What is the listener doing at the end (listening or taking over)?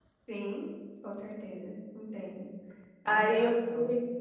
taking over